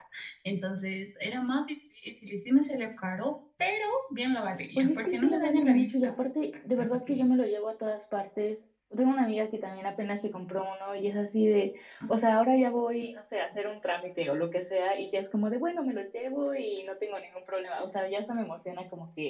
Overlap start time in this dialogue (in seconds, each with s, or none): 4.8 s